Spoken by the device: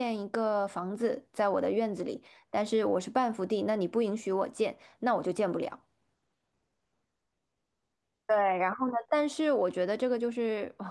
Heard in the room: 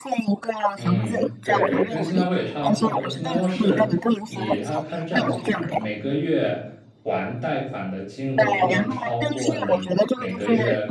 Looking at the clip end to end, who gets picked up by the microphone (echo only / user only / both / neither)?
both